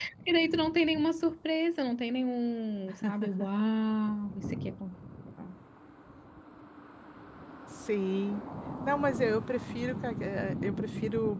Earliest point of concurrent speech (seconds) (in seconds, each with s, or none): none